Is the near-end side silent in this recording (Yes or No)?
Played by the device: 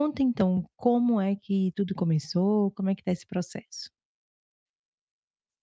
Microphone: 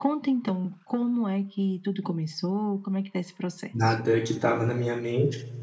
No